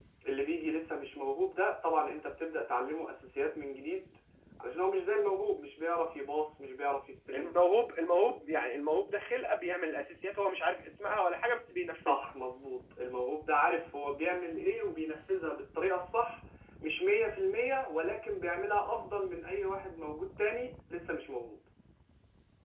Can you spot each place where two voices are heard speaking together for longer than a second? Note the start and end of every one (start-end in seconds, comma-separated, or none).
none